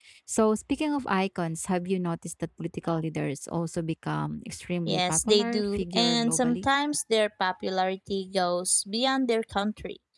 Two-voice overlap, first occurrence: 4.9 s

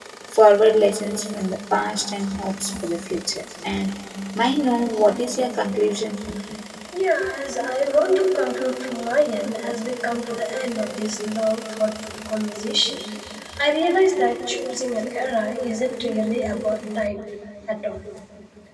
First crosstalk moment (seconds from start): none

